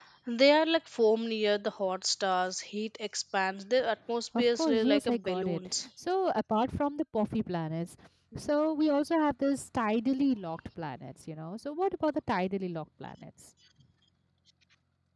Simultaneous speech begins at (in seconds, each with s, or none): 4.3 s